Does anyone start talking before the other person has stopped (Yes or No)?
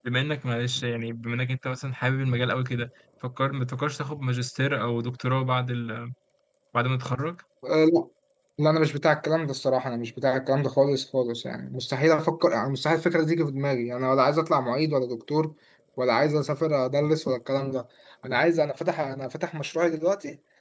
No